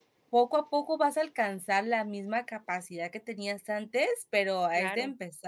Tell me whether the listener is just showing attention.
Yes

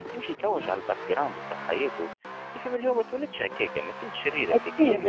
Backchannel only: Yes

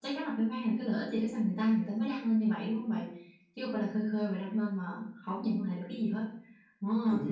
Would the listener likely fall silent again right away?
Yes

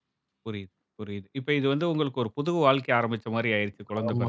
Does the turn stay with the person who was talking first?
No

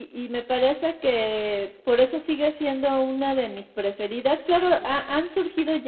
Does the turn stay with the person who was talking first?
Yes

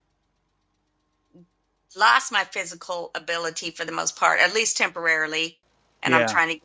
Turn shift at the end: No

